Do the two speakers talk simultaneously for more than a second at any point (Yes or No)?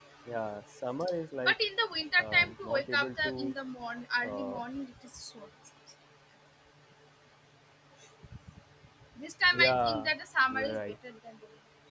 Yes